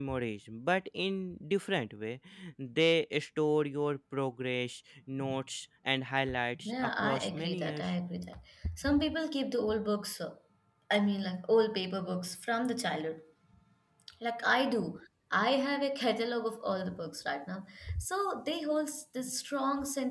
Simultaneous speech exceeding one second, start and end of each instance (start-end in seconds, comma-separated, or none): 6.6-7.9